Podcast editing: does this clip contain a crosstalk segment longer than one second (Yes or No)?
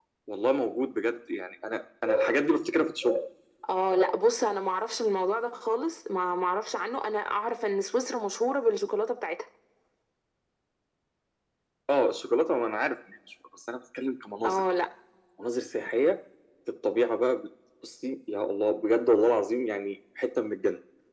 No